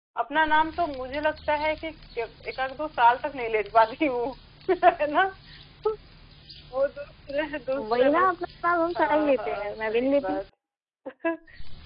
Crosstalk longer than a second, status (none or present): present